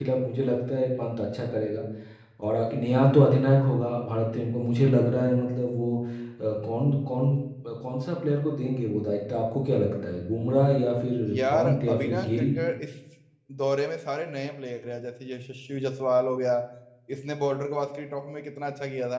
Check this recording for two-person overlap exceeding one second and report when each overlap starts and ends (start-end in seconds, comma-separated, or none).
11.2-12.5